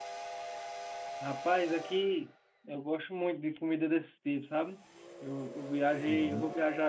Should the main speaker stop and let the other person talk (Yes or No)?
No